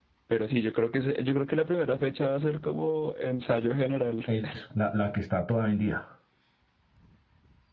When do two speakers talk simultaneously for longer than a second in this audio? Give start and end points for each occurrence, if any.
none

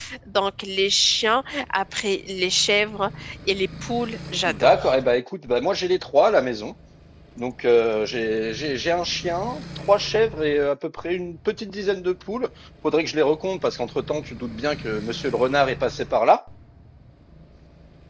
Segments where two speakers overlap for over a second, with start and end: none

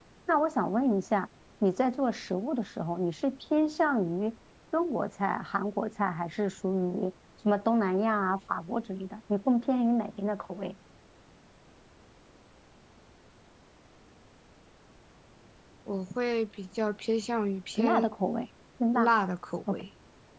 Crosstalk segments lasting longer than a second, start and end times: none

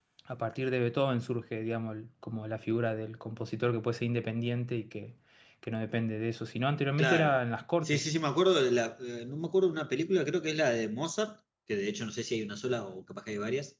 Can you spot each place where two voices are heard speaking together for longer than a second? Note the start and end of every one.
none

